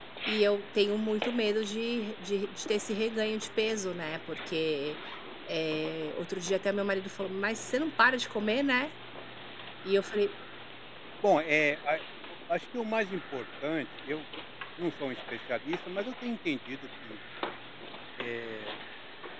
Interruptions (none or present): none